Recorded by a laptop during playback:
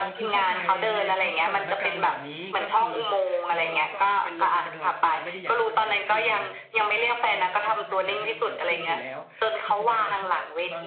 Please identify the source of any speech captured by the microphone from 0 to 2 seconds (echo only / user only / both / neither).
both